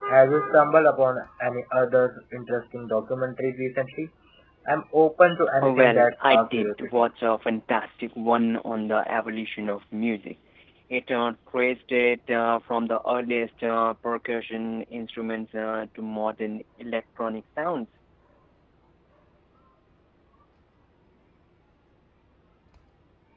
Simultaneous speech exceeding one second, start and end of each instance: 5.6-6.9

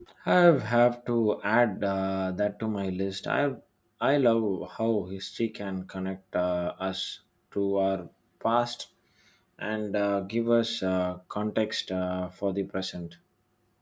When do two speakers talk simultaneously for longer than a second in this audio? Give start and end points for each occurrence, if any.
none

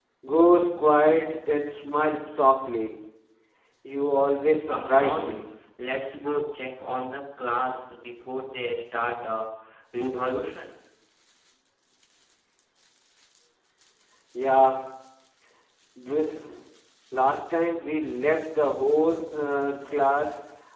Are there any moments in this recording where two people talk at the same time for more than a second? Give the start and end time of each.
4.1-5.4

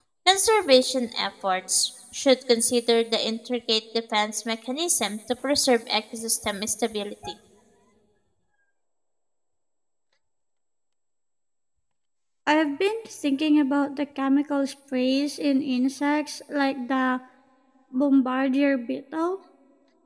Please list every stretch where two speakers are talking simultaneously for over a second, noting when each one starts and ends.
none

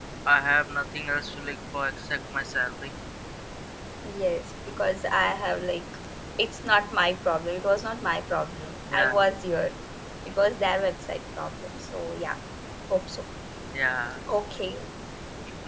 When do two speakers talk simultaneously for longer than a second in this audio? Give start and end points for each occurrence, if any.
none

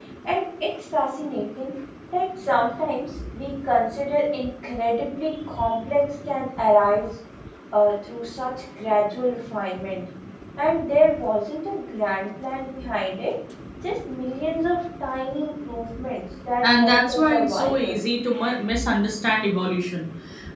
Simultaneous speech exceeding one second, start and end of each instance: 16.6-18.0

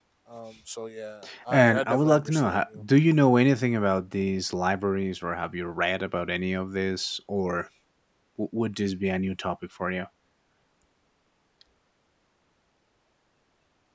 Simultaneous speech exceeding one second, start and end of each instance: 1.5-2.8

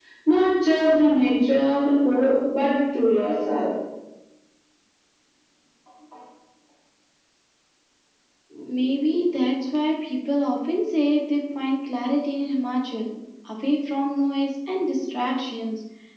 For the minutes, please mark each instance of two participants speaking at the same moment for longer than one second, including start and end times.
none

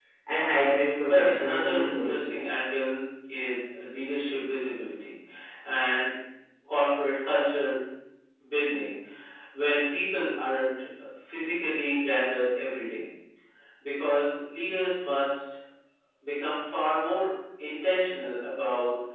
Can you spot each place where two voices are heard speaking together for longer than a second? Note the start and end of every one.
1.1-2.2

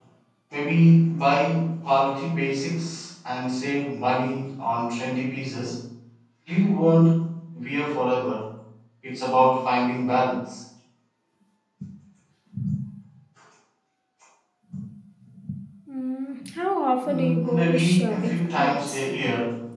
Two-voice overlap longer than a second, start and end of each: 17.1-19.0

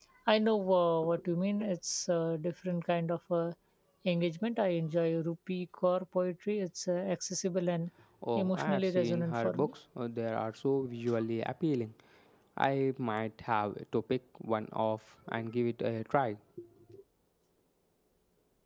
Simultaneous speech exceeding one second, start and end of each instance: 8.3-9.7

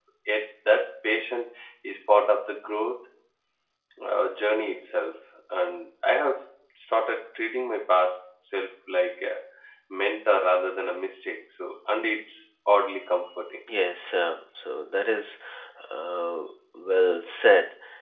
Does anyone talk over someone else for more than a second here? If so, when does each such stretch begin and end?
none

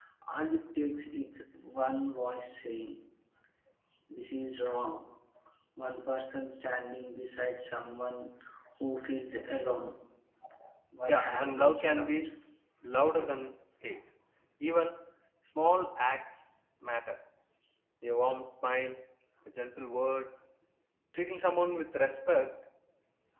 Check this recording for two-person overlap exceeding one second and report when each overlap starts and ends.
11.1-12.3

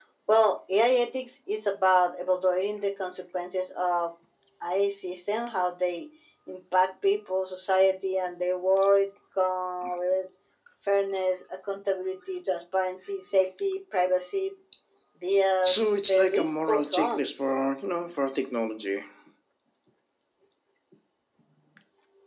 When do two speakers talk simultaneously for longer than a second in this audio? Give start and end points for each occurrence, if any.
15.7-17.3

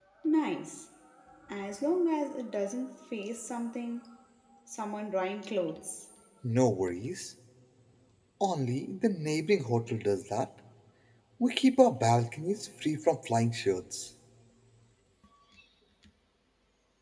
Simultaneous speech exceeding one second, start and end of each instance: none

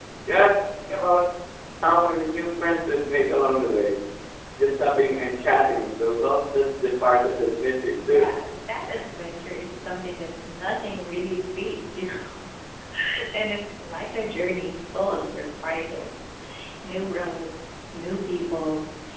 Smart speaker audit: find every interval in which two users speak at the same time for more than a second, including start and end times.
none

